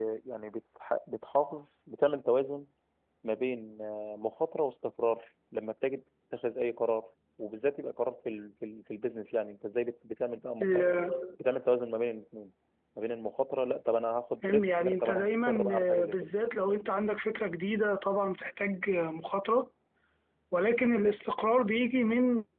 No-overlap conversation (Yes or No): No